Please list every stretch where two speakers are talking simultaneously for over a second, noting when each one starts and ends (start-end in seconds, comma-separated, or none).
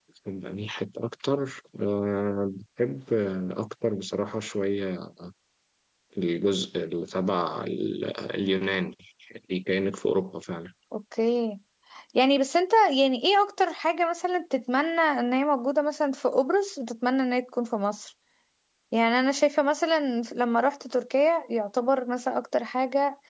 none